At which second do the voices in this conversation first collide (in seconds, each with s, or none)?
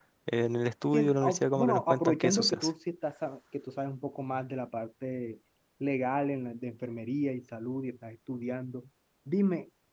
0.9 s